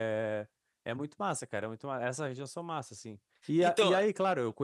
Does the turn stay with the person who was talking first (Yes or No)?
Yes